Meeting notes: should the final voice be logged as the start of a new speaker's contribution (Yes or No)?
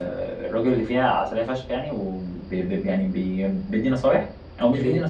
No